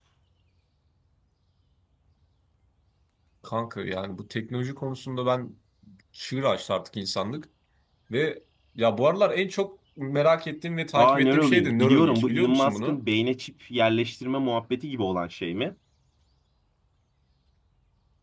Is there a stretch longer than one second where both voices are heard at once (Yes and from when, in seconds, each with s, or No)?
Yes, from 11.0 s